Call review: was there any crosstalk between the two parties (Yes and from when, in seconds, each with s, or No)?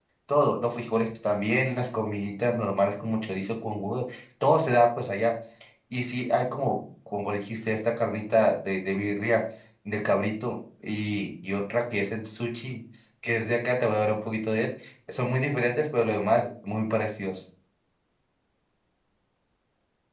No